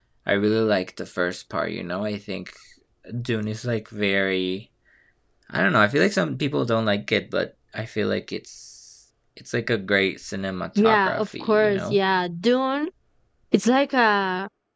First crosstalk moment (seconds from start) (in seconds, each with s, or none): 10.8 s